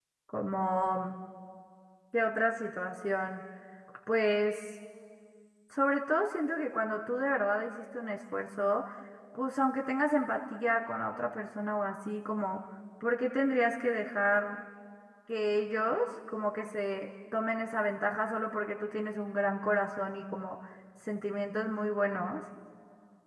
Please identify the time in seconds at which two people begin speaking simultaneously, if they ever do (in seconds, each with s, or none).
none